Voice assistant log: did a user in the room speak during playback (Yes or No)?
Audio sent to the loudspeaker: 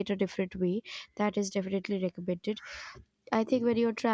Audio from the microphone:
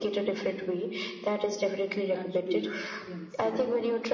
Yes